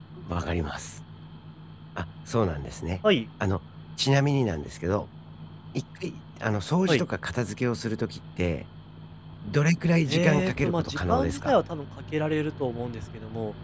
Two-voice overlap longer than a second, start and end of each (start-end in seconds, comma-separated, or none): 10.1-11.6